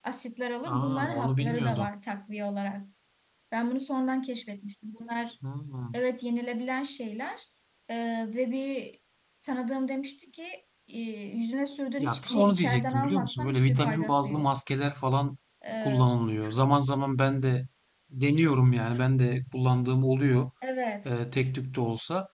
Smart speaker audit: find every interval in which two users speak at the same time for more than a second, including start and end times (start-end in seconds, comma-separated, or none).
0.7-1.9, 12.0-14.5